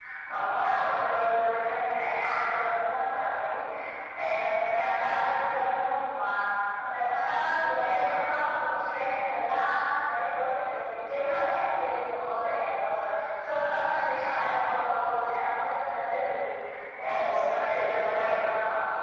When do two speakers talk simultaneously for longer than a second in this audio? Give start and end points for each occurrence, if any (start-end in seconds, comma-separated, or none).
17.1-18.5